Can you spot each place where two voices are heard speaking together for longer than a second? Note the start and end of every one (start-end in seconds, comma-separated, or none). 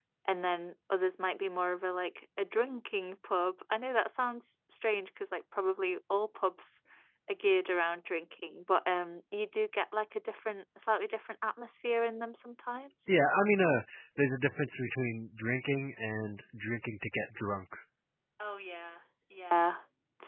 none